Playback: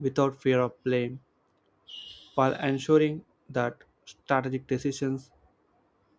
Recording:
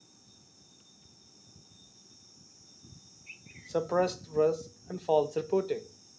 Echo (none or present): none